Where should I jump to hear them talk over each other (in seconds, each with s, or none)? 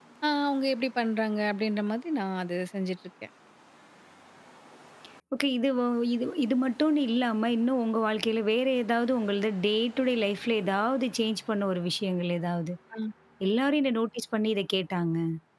none